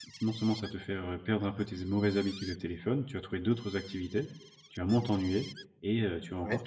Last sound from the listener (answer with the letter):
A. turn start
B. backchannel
B